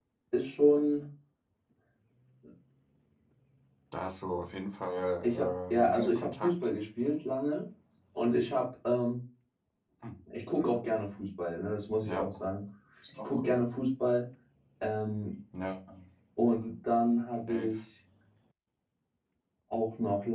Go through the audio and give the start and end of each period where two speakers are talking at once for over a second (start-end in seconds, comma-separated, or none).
5.2-6.5